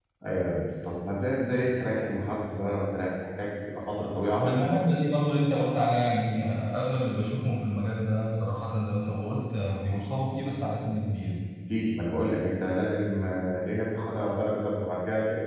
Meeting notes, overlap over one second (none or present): none